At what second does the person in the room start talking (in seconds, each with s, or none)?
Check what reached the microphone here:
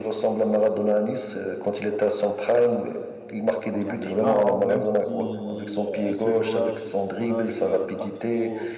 3.8 s